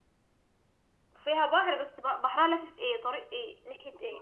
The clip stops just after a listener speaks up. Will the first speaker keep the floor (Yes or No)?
No